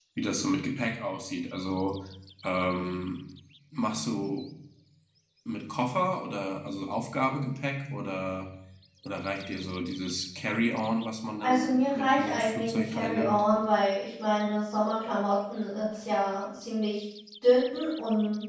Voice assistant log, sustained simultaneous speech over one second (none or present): present